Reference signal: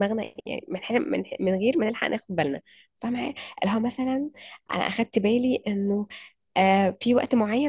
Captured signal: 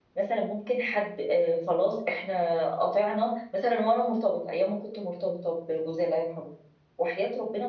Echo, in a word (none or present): none